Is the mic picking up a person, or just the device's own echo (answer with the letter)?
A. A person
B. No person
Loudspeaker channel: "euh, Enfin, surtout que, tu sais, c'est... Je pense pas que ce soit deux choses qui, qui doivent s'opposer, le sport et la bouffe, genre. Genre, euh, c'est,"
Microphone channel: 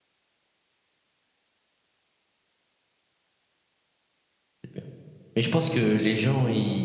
A